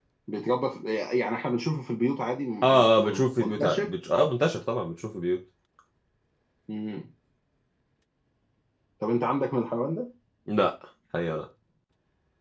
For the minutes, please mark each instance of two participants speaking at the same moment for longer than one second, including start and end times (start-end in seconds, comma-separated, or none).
2.6-3.9